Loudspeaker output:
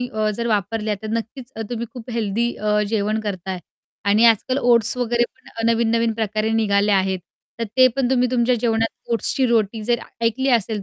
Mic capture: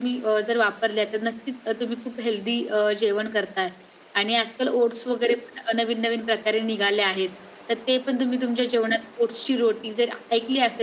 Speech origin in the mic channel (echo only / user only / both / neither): echo only